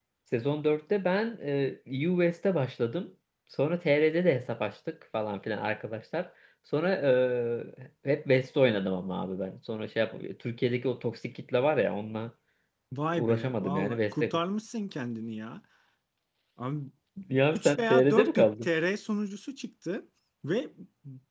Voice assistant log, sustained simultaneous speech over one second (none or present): present